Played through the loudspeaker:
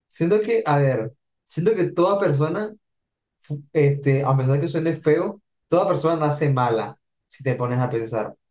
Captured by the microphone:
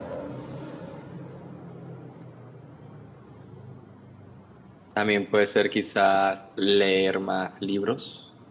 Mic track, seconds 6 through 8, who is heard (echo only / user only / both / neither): user only